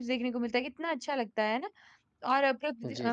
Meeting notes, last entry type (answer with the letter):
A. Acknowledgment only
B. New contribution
A